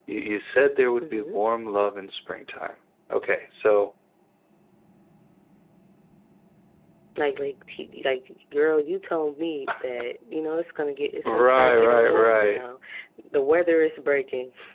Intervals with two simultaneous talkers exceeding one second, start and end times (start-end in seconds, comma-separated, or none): 11.2-12.6